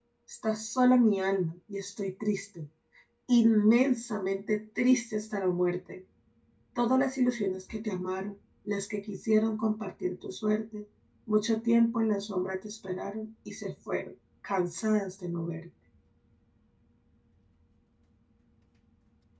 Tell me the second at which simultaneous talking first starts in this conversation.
none

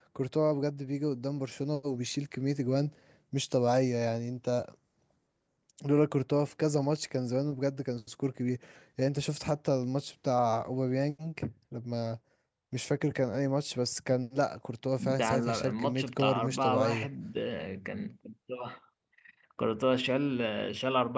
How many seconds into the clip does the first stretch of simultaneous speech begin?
15.0 s

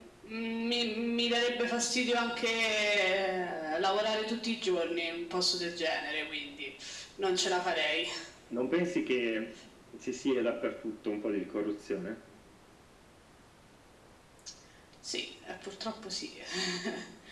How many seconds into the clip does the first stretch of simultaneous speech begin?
none

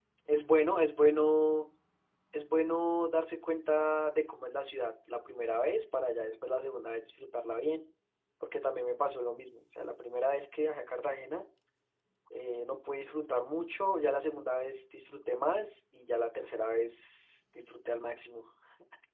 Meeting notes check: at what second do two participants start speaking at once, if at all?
none

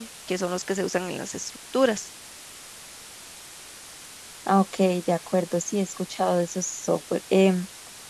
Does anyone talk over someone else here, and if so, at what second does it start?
none

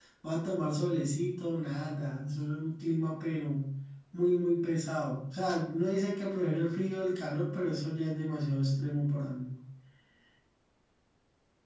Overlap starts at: none

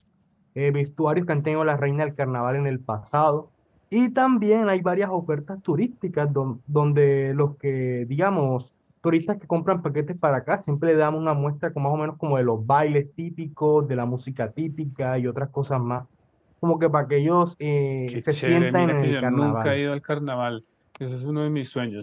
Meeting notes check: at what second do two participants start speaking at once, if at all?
18.1 s

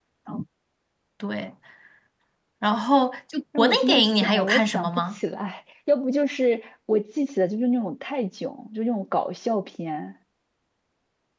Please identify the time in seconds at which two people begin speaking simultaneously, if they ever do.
3.5 s

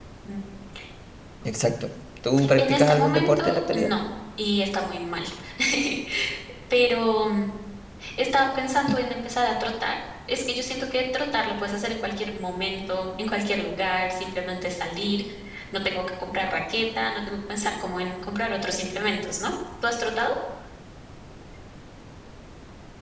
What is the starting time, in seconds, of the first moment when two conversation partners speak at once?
2.4 s

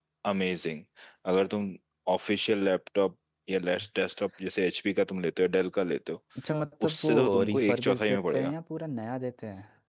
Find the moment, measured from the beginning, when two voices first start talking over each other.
6.8 s

